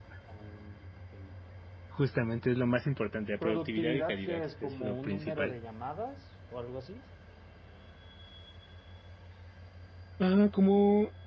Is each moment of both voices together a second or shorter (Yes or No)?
No